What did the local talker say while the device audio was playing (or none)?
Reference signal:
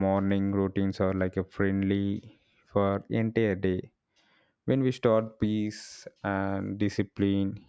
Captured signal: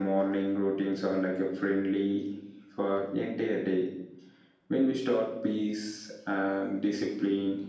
none